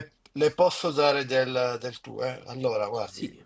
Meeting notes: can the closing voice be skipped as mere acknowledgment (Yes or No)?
Yes